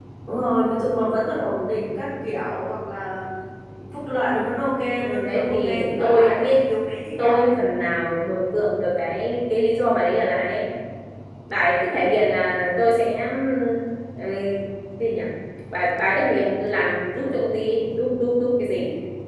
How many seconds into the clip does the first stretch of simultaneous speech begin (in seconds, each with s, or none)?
5.0 s